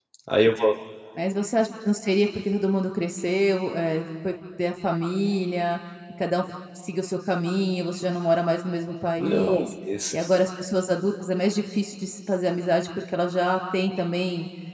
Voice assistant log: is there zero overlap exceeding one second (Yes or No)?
Yes